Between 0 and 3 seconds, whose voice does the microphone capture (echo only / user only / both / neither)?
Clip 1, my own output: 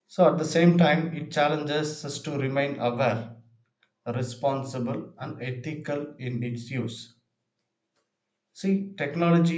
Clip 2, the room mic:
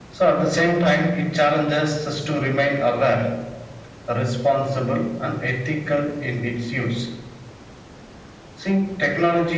echo only